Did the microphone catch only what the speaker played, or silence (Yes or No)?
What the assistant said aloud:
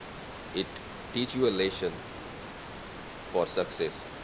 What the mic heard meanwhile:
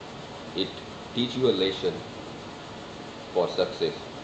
Yes